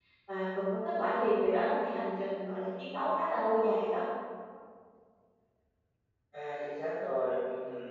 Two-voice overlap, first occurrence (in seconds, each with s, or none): none